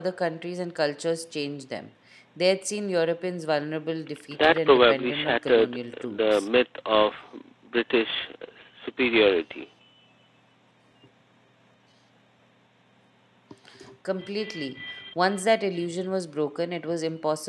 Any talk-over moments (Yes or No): Yes